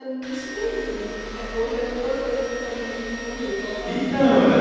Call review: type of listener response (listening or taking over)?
taking over